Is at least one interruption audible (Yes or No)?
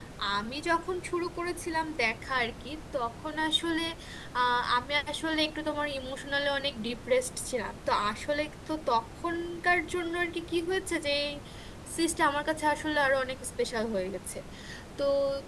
No